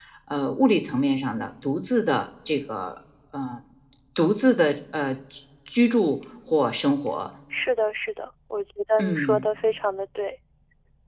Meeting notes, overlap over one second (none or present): none